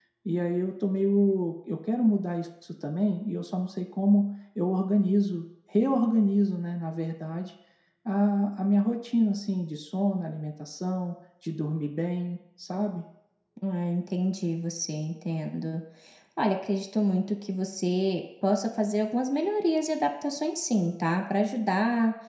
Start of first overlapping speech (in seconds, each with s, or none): none